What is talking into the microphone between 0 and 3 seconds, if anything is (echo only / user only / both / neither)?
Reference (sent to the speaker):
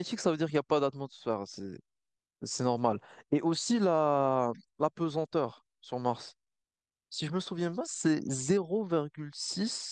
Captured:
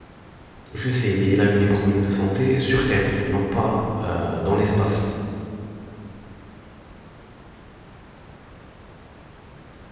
user only